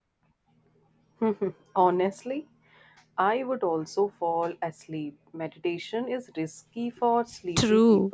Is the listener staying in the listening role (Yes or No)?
No